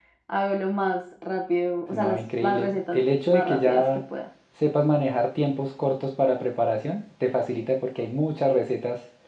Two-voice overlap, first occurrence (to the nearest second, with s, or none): 2 s